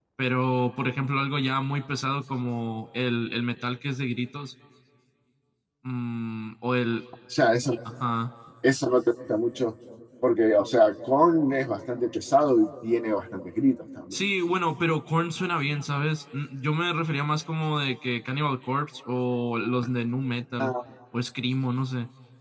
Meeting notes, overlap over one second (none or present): none